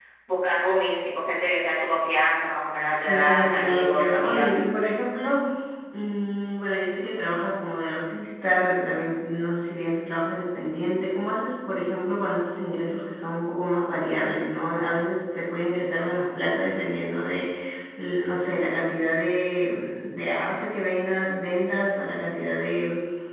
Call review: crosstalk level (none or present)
present